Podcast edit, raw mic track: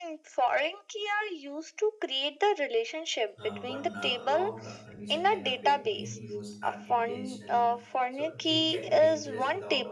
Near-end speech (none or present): present